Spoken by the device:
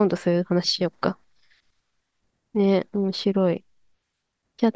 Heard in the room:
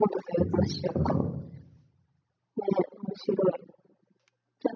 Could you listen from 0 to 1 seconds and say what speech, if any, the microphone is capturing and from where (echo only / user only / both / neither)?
both